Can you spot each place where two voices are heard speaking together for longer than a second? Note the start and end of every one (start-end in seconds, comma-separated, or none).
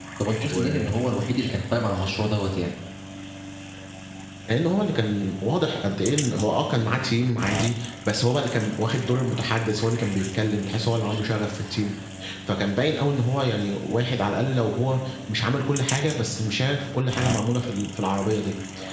none